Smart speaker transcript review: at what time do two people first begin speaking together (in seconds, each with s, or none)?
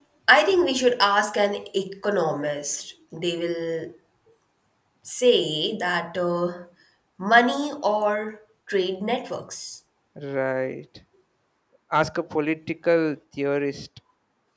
none